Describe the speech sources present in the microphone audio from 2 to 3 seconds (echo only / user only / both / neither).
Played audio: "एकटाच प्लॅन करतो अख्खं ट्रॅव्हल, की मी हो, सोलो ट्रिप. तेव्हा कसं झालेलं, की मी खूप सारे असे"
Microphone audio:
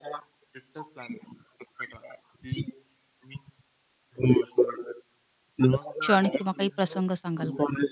echo only